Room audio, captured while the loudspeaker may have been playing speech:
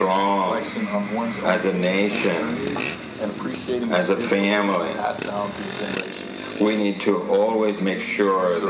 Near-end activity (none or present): none